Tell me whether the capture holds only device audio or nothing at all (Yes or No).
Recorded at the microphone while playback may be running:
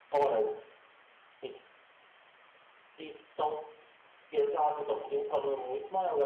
Yes